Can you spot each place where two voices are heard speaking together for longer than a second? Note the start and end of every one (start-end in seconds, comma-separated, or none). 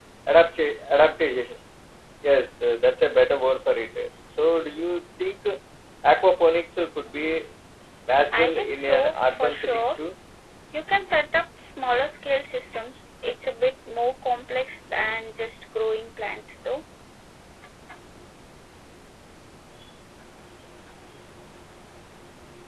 8.3-9.9